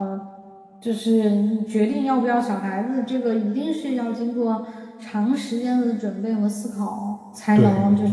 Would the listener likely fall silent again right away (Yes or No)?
Yes